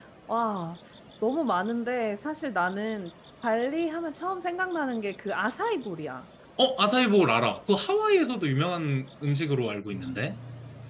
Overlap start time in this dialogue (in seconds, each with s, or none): none